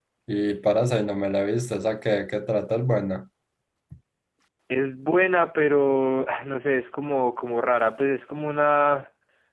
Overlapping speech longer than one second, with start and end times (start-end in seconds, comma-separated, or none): none